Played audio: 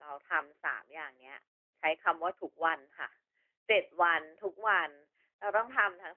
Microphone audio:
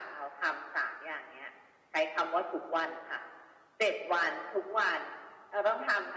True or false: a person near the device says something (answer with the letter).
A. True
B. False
B